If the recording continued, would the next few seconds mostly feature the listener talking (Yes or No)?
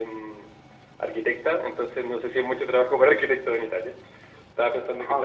Yes